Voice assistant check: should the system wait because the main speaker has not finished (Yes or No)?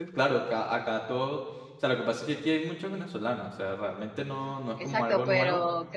No